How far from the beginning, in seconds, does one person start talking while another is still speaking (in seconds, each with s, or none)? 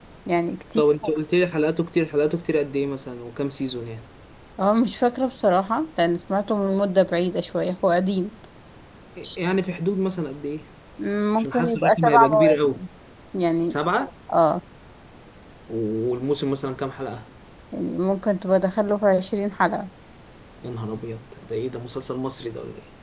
11.4 s